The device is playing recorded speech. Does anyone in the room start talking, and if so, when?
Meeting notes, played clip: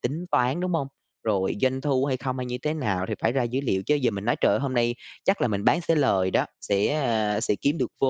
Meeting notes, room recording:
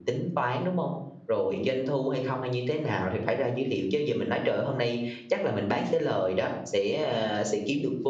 none

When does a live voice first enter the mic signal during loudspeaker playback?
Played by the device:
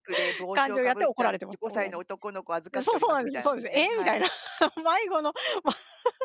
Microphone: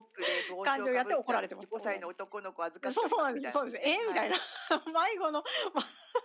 none

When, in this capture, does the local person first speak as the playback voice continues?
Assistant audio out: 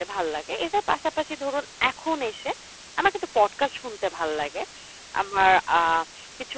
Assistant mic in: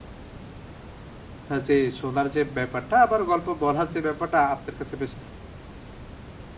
1.5 s

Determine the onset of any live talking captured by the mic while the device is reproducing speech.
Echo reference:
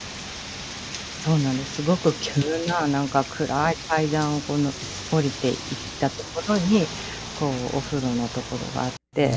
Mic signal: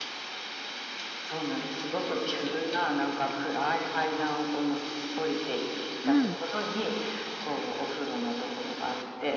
6.0 s

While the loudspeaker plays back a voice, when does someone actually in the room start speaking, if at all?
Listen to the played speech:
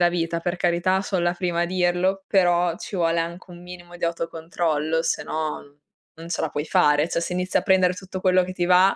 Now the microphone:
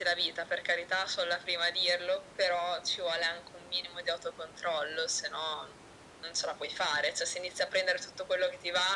none

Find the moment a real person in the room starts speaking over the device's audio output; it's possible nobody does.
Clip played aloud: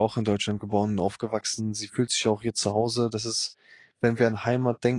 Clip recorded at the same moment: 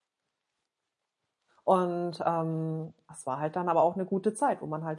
1.6 s

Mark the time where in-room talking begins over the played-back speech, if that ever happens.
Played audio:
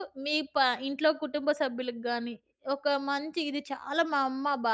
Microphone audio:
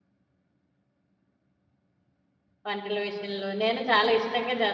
2.7 s

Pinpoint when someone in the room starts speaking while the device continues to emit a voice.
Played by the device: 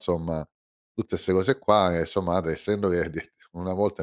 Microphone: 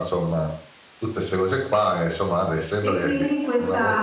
2.8 s

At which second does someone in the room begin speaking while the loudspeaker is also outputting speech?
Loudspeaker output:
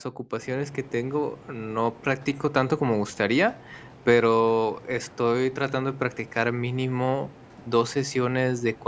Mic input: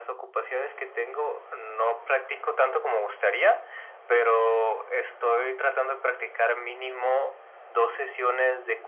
none

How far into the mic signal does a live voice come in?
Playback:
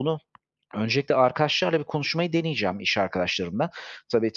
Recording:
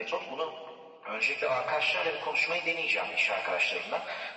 none

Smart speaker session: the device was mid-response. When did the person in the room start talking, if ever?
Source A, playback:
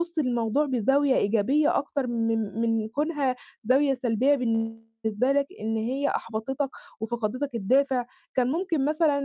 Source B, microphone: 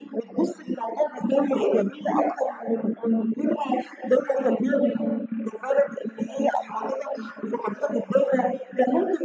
none

